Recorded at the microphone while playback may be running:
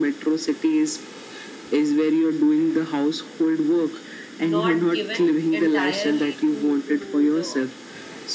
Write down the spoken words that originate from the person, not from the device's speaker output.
not given entirely to to the

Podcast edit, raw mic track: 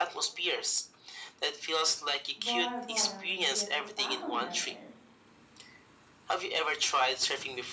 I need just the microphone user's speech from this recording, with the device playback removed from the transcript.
Bora Bora would be at the top of my list.

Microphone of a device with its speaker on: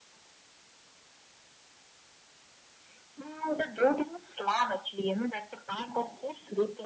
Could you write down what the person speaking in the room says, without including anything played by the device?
none

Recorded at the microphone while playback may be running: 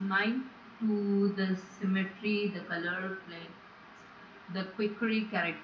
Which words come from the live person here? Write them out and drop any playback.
none

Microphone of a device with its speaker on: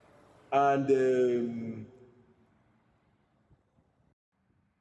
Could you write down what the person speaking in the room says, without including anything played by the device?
and um

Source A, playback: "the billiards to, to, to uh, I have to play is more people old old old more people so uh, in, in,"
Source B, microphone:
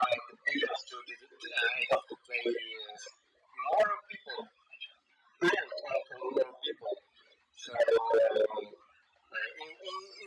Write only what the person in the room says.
none

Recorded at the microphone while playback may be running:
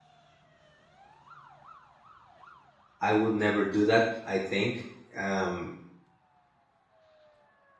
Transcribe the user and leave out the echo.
i would never do that i think um

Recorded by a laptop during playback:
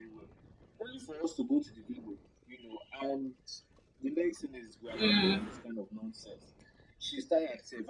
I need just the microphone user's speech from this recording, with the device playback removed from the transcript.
mm,

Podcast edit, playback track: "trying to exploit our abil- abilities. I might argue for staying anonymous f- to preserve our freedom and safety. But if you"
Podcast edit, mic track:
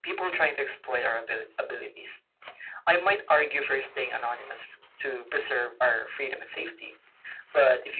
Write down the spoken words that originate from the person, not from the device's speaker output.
none

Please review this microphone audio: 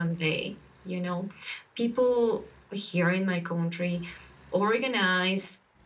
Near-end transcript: none

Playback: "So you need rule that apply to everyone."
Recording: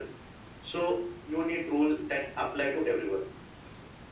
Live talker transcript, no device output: none

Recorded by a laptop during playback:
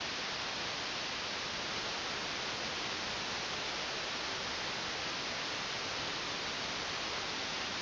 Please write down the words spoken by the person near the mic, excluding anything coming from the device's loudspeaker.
none

